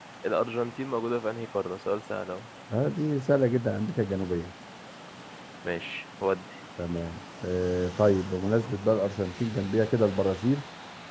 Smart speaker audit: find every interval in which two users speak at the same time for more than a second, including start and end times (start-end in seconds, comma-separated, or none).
none